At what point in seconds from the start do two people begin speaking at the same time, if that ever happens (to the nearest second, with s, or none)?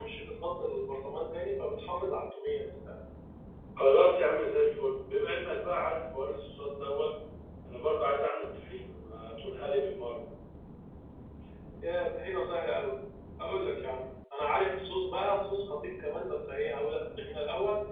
none